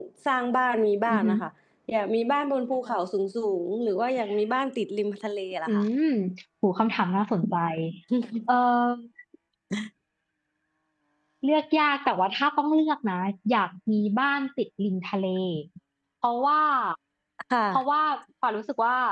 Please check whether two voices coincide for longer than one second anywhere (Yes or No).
No